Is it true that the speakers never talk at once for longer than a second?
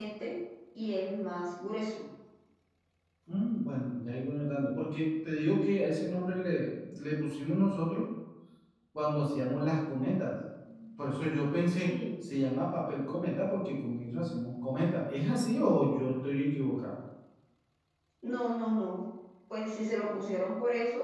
Yes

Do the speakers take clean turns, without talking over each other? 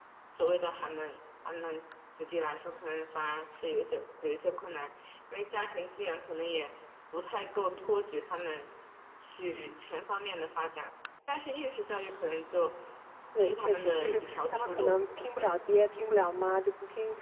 No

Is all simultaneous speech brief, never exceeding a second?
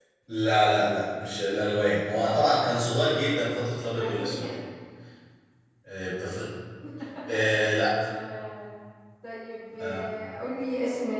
Yes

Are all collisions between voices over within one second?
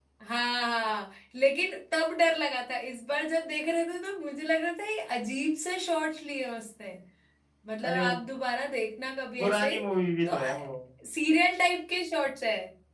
Yes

